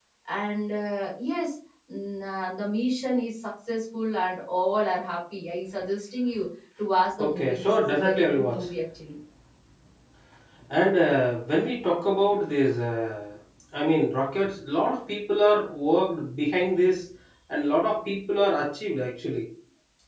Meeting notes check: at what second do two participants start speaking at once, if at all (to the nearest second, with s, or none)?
7 s